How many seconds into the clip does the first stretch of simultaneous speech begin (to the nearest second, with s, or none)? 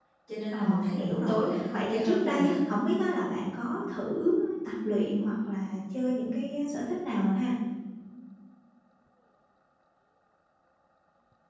1 s